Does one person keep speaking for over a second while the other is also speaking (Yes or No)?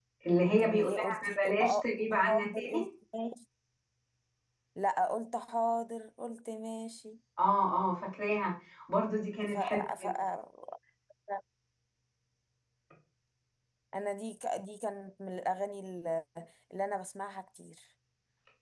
Yes